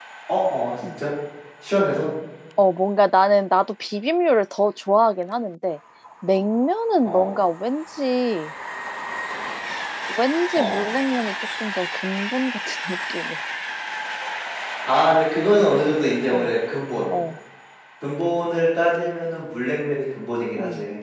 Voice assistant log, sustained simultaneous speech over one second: none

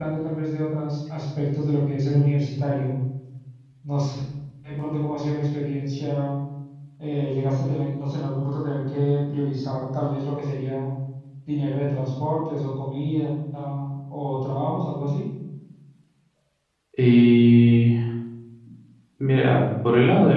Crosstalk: none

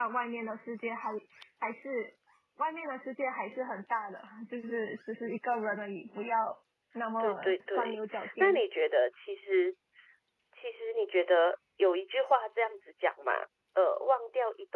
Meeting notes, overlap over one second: present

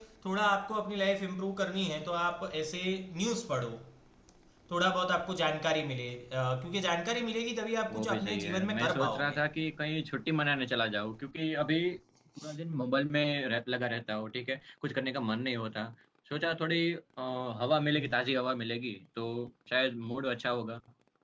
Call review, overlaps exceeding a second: present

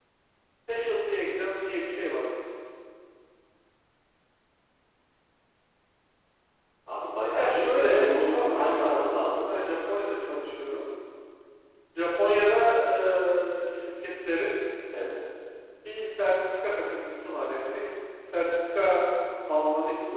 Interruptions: present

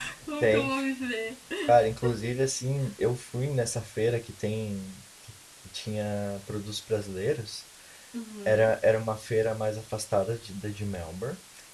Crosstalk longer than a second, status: none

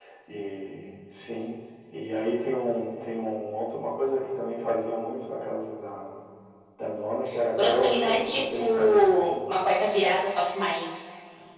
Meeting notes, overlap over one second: present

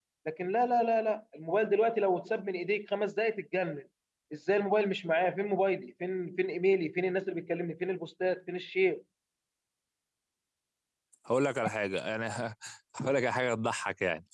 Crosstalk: none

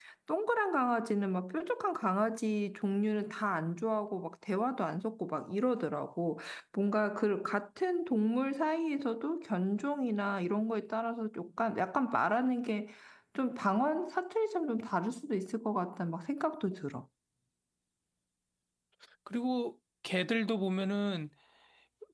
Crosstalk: none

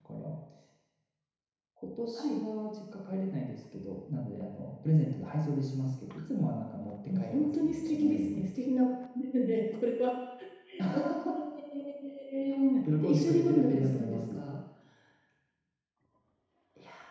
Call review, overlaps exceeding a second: present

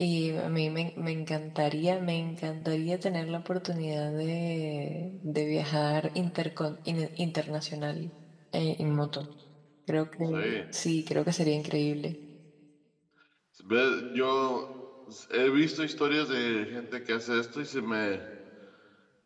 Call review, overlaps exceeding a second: none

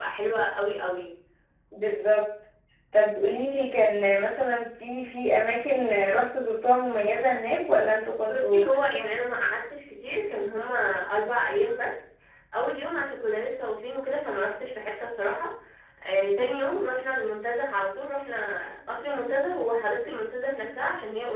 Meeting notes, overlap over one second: none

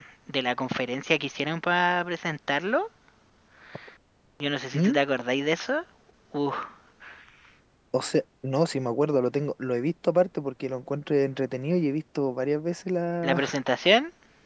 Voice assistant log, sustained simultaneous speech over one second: none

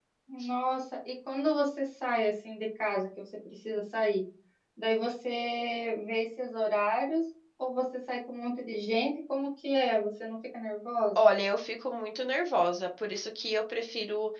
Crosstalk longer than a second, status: none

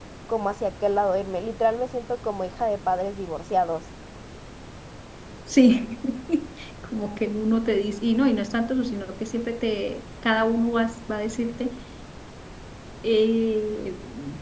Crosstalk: none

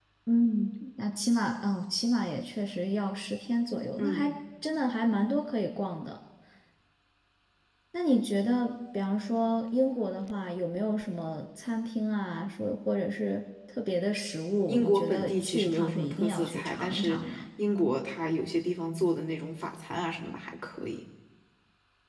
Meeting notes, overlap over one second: present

